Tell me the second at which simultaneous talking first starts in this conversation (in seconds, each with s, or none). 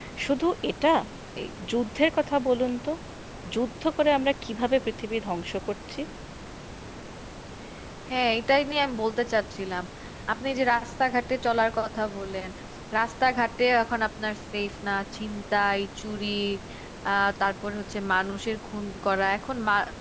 none